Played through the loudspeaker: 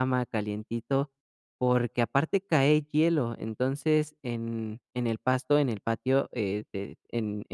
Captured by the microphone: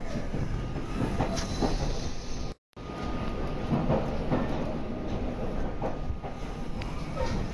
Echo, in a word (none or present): none